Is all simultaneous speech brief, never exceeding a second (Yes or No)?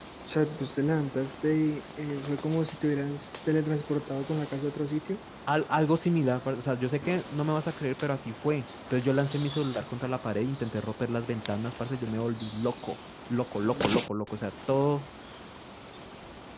Yes